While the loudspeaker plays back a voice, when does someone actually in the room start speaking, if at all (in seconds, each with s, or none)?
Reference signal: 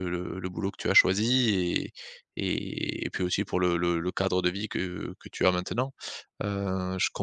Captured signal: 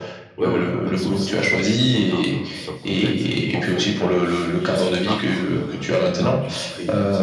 0.4 s